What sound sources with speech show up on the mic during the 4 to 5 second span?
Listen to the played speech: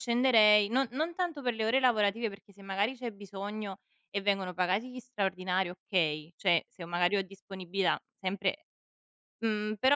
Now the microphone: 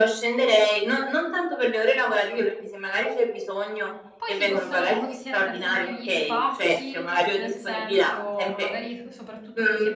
both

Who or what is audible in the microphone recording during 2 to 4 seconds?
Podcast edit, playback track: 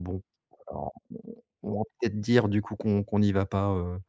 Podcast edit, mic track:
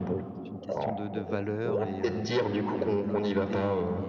both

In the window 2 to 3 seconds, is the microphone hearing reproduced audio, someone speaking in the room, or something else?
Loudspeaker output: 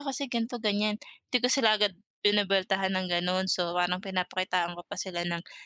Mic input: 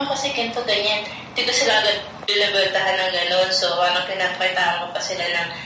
echo only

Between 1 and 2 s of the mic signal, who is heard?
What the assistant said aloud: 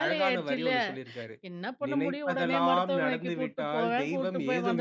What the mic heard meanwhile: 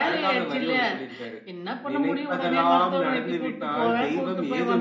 echo only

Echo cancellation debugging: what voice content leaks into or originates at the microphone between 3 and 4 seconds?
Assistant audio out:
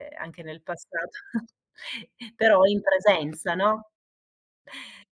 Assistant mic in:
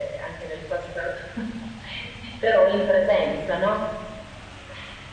echo only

